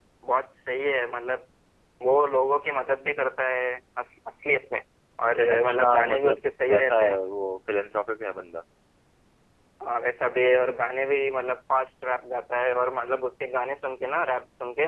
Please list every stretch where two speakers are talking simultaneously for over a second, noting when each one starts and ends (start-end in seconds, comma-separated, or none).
5.5-7.2